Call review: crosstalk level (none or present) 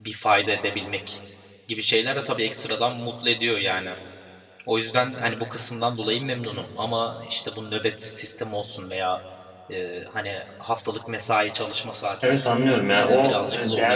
present